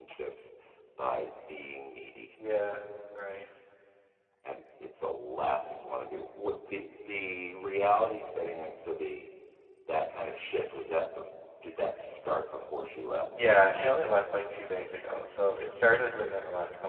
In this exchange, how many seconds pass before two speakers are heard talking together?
none

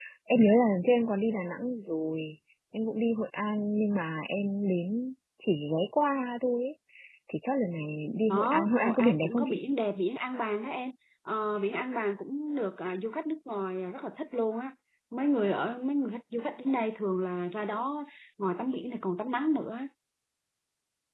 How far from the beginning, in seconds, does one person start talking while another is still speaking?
8.3 s

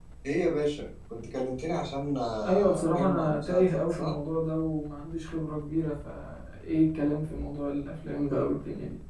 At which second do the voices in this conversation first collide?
2.4 s

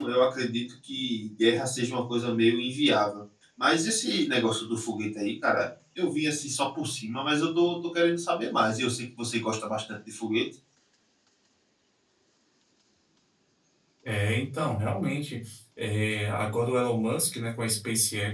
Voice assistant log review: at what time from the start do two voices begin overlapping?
none

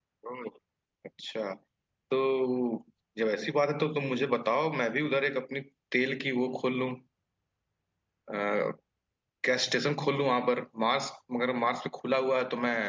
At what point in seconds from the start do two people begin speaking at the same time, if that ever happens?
none

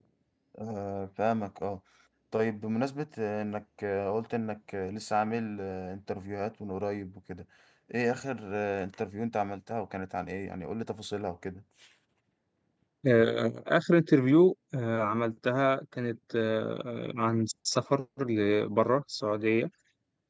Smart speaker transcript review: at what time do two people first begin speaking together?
none

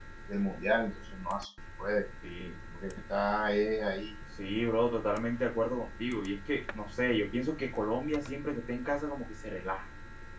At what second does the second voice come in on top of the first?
none

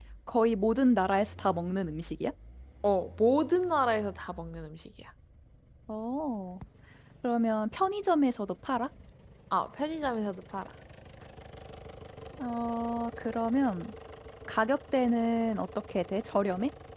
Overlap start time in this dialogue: none

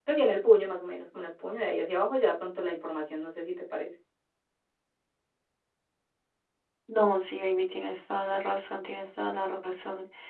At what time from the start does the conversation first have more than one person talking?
none

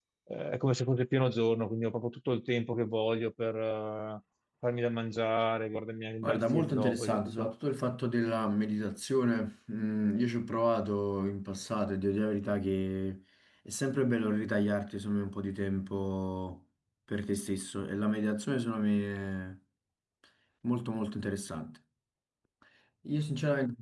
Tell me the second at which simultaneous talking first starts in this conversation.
6.2 s

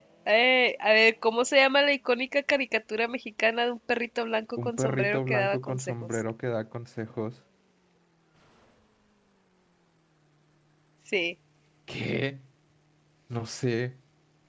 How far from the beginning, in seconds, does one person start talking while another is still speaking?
4.6 s

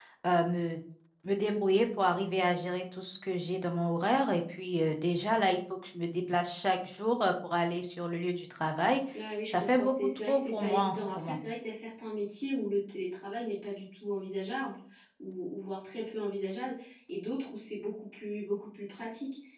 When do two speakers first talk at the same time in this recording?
9.5 s

